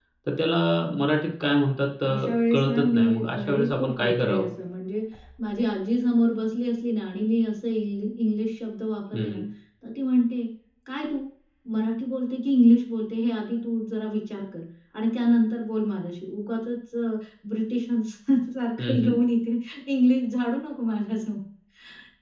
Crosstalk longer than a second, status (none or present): present